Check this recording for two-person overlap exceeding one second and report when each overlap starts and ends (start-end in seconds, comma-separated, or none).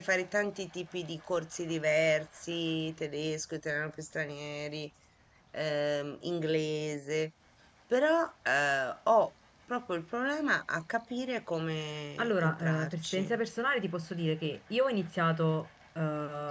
12.2-13.4